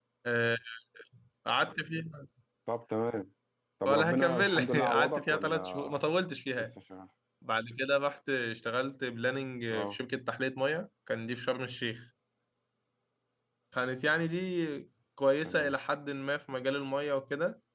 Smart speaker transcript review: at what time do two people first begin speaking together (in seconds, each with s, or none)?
3.9 s